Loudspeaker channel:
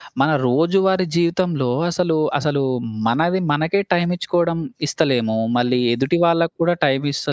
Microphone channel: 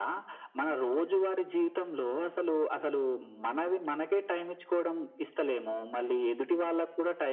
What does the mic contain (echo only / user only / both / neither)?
echo only